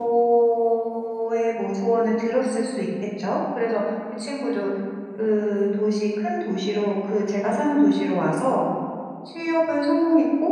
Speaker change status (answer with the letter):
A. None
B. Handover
A